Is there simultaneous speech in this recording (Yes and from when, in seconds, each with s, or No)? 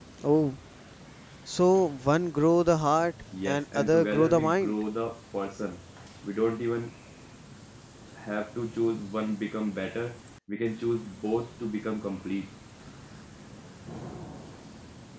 Yes, from 3.3 s